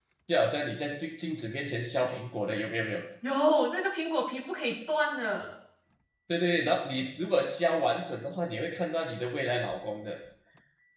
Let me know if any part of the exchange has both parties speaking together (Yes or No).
No